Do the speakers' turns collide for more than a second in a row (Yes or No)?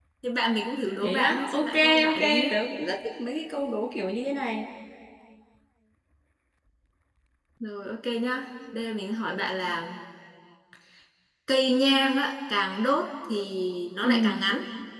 Yes